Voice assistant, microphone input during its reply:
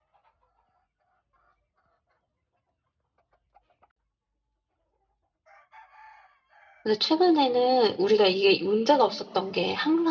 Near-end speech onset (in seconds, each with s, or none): 6.8 s